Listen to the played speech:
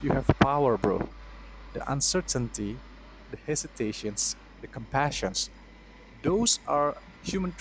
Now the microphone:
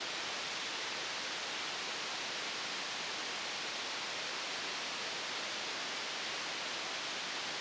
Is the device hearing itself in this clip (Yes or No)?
No